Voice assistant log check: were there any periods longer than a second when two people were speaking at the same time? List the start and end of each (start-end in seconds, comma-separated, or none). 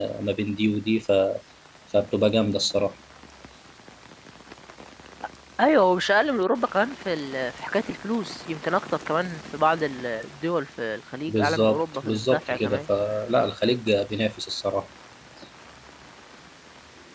11.3-12.8